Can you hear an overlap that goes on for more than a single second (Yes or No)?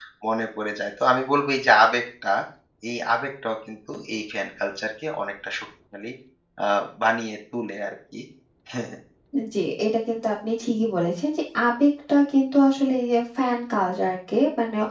No